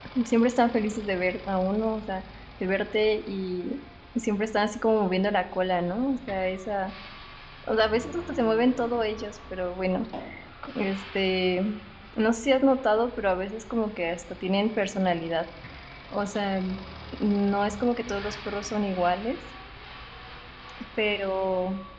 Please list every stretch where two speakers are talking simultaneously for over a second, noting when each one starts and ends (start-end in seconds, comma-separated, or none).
none